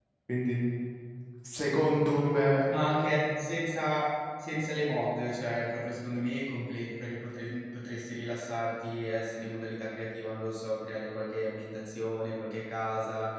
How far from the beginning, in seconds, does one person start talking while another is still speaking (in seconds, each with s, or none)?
none